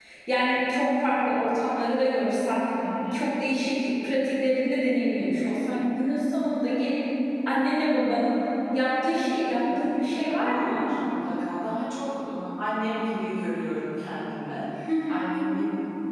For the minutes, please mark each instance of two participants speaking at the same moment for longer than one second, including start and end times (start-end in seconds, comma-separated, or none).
9.4-10.8